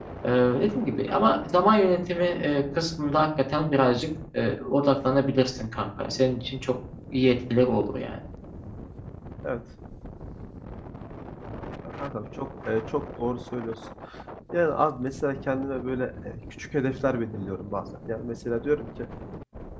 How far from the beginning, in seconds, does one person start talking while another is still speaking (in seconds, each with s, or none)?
none